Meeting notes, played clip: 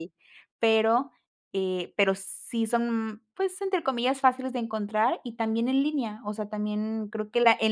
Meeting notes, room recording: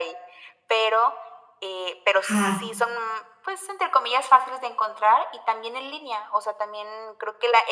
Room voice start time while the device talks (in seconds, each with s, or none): 2.2 s